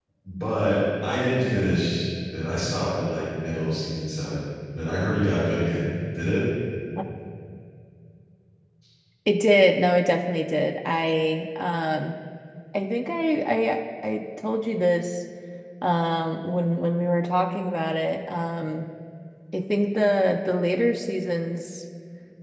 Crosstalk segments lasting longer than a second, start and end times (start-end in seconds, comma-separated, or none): none